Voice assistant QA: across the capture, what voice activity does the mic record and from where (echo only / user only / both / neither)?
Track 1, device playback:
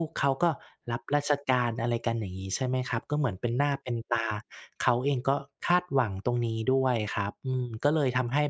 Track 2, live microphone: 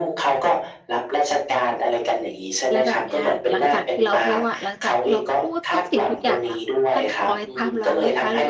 both